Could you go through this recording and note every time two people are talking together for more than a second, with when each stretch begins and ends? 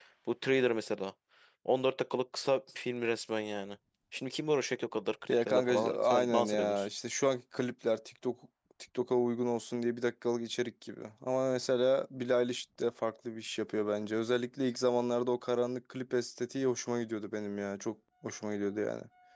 5.3-6.9

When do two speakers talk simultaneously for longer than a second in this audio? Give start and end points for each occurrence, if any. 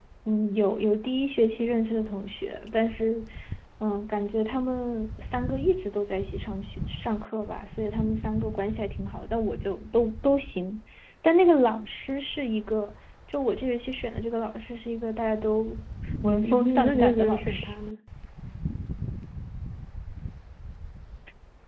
16.4-17.7

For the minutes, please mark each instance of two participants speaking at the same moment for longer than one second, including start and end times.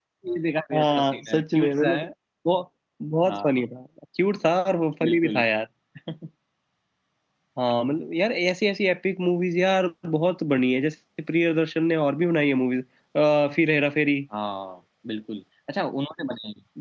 0.7-2.0

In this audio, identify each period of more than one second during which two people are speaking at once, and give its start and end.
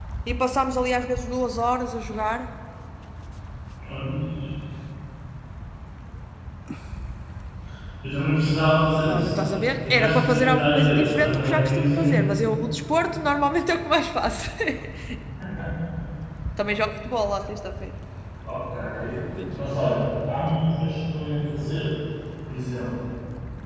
9.1-12.2

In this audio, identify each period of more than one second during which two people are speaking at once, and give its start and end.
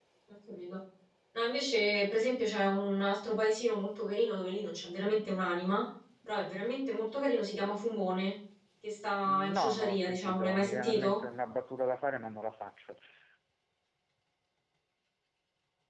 9.3-11.2

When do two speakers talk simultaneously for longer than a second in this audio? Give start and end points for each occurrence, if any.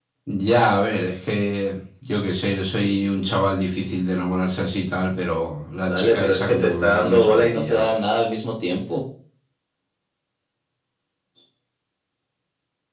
5.9-7.9

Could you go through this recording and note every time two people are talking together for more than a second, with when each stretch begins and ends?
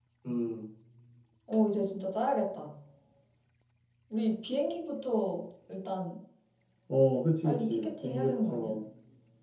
7.4-8.7

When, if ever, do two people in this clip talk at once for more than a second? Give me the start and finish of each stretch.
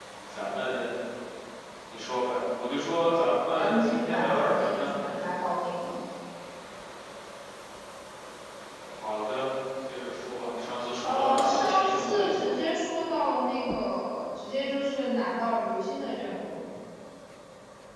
3.5-4.9, 11.0-12.5

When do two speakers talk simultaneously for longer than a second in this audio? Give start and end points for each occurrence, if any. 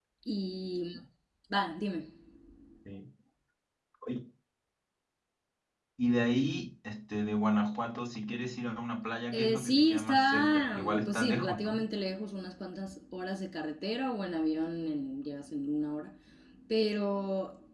9.3-11.9

